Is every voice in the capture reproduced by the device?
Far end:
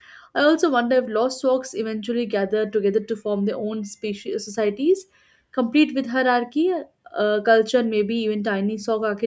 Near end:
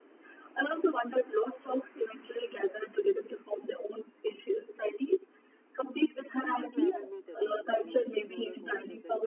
No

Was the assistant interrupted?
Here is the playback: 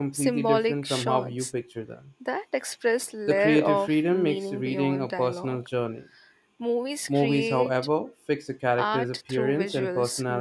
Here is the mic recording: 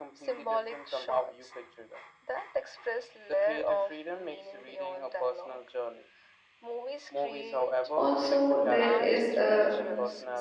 Yes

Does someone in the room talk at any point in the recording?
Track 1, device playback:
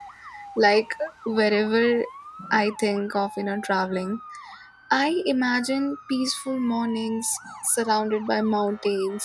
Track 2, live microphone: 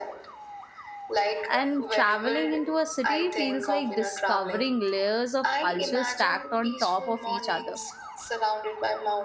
Yes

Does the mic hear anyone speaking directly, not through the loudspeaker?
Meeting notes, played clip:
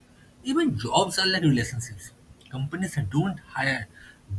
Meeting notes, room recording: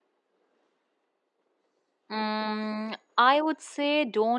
Yes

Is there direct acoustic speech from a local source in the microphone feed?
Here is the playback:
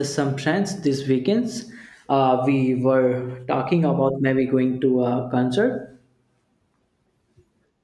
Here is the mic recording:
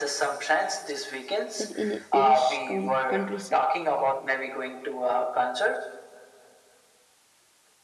Yes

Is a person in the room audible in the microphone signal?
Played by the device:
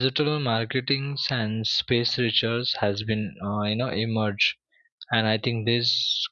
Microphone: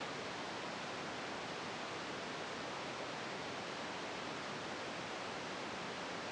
No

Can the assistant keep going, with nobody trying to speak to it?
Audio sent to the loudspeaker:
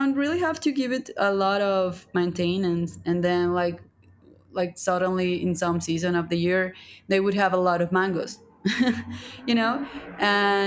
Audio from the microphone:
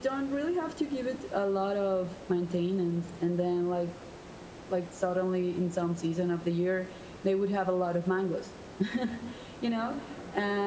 Yes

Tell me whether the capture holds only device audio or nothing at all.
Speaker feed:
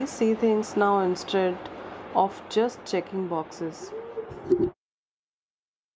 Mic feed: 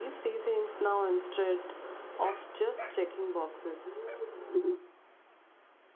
Yes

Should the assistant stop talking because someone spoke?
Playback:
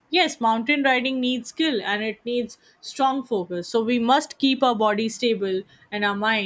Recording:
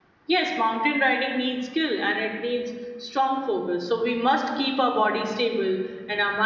No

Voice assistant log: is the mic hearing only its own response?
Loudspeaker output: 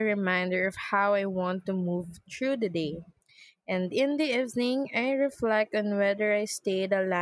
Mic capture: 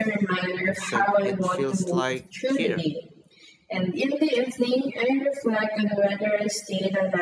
No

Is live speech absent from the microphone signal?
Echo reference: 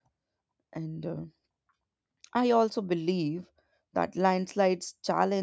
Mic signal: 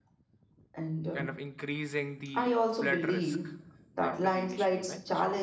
No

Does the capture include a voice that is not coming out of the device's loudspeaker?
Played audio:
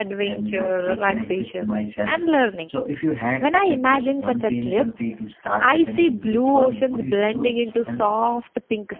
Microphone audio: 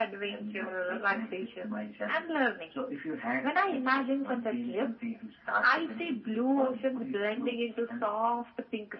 No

